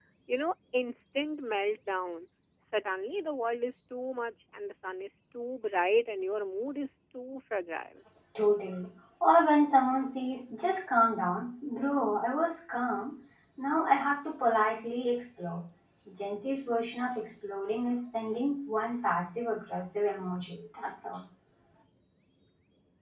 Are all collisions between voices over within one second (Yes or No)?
Yes